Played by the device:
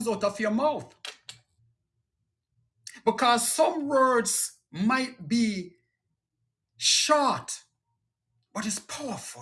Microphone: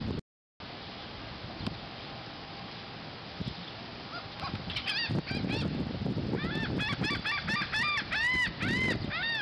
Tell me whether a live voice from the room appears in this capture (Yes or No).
No